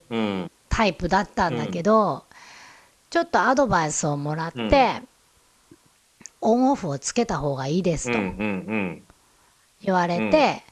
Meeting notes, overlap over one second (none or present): none